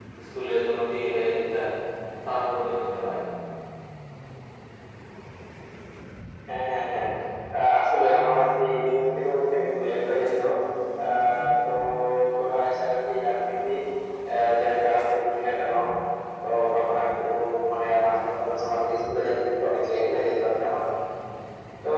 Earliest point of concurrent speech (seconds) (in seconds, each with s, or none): none